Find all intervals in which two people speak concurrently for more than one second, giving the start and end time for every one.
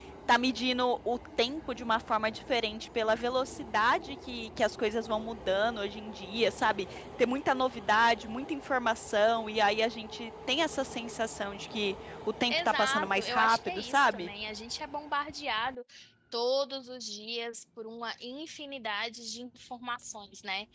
12.5-14.3

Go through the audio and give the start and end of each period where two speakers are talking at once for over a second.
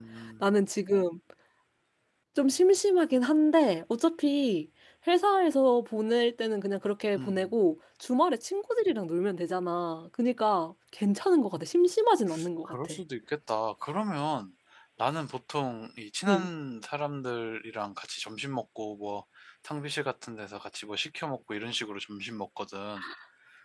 none

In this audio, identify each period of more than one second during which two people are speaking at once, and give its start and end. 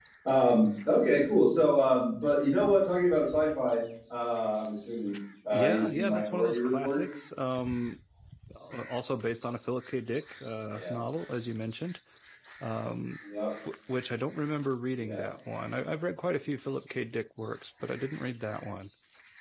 5.5-7.0

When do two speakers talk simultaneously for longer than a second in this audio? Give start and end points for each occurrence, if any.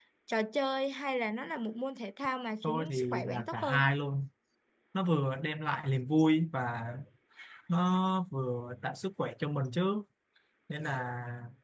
2.6-3.9

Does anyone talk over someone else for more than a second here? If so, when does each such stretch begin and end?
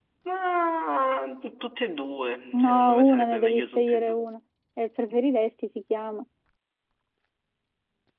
2.5-4.2

